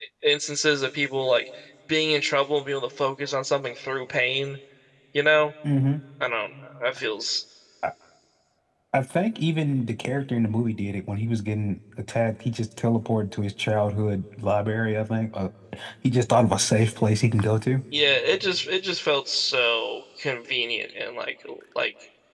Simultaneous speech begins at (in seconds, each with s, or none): none